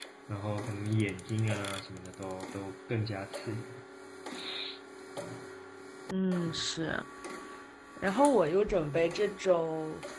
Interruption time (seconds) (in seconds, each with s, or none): none